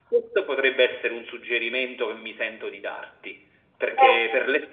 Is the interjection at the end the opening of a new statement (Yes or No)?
No